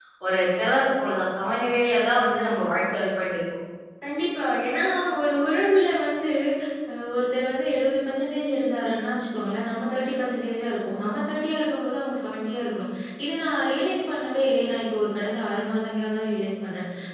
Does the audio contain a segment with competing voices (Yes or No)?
No